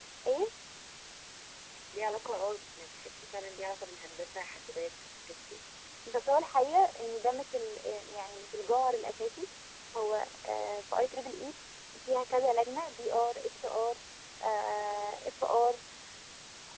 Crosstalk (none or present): none